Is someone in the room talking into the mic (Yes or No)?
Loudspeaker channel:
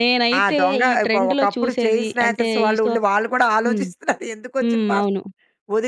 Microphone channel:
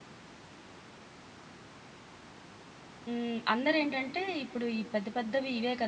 Yes